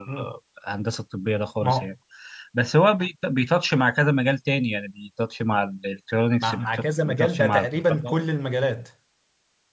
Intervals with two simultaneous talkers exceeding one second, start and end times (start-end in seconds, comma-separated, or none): 6.4-8.1